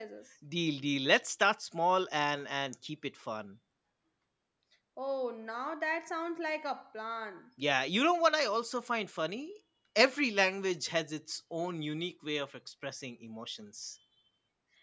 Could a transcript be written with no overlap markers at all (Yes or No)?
Yes